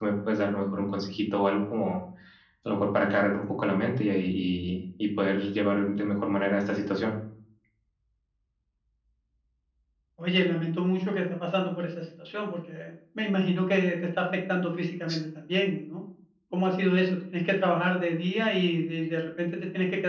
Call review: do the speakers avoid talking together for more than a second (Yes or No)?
Yes